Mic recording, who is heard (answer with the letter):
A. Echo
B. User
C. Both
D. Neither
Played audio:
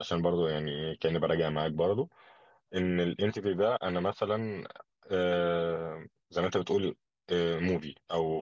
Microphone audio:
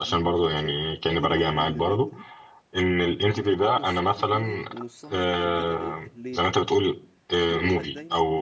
C